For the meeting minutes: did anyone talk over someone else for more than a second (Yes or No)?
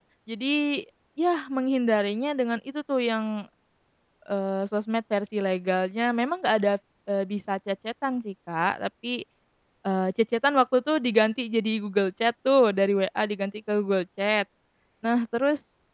No